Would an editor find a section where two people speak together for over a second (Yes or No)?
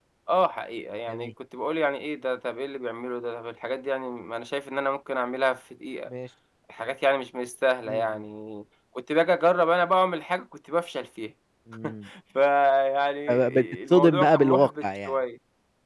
Yes